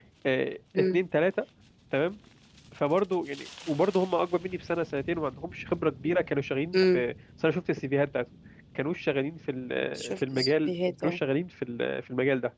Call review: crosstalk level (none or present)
present